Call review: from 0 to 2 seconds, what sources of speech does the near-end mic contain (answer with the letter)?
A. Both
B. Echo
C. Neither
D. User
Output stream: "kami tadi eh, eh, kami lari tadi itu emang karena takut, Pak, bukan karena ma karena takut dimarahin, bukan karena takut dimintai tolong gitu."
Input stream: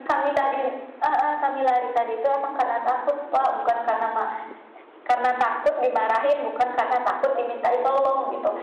B